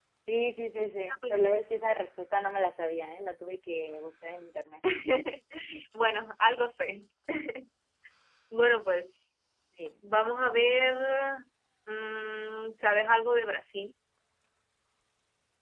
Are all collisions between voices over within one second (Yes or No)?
Yes